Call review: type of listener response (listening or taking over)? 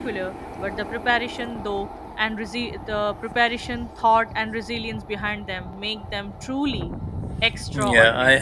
taking over